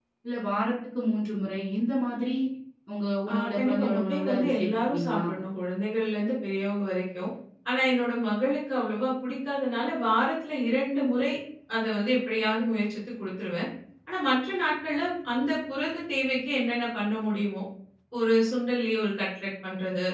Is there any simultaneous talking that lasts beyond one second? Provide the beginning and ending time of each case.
3.3-5.2

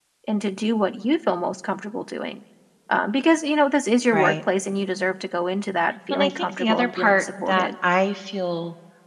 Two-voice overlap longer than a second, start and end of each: 6.1-7.7

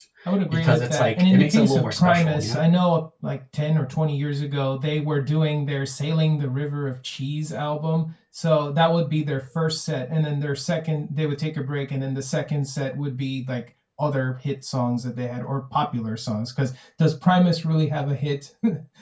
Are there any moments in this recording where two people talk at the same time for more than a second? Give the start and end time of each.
0.5-2.6

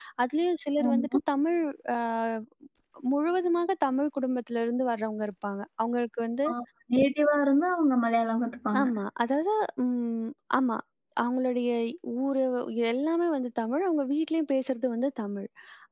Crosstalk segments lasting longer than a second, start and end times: none

